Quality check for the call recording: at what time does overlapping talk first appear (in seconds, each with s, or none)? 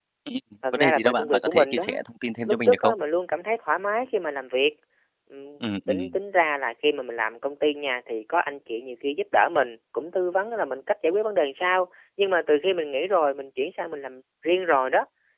0.7 s